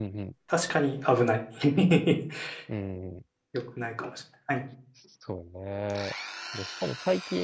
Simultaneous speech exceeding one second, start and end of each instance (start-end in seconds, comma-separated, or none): none